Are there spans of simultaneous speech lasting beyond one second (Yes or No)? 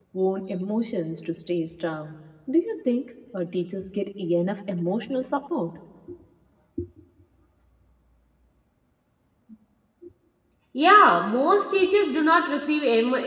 No